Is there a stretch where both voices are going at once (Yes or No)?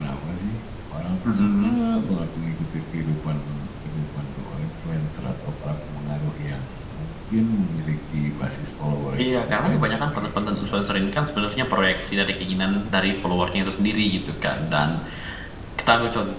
Yes